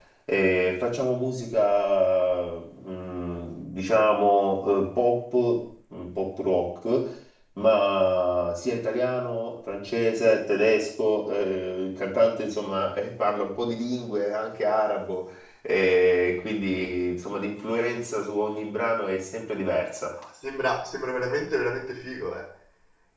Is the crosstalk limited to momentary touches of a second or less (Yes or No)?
Yes